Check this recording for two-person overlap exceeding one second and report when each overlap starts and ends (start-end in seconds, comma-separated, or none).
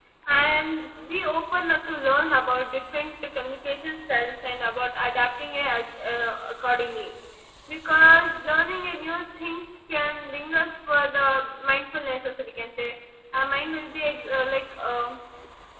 none